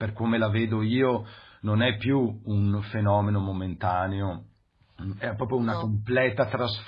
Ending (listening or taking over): listening